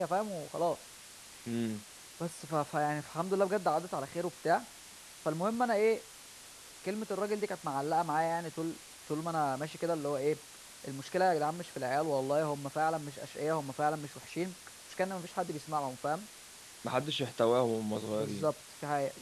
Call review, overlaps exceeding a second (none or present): none